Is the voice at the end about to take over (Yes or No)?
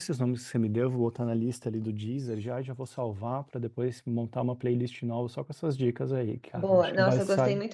Yes